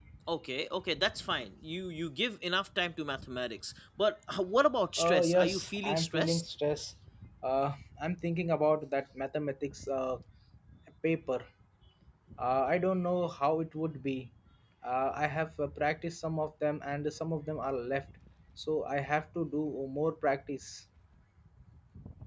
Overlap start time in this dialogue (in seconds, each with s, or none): 5.0 s